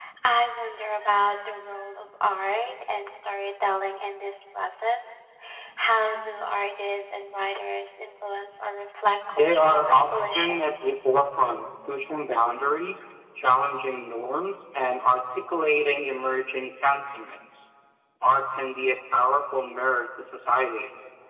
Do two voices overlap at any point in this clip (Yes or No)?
Yes